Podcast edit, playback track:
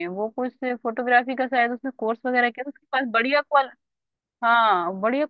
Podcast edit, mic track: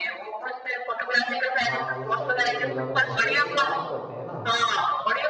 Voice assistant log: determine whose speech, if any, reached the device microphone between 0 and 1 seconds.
echo only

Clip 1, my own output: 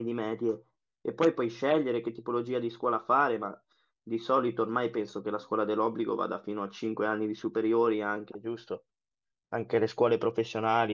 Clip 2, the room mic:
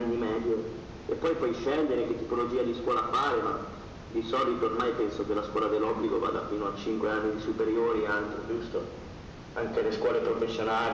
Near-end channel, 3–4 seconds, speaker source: echo only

